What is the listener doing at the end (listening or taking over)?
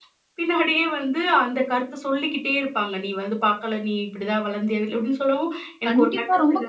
taking over